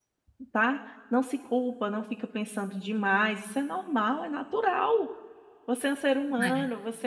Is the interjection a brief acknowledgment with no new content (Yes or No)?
Yes